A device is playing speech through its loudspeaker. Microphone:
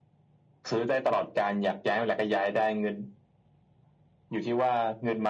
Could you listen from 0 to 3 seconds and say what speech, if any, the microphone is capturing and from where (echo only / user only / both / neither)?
echo only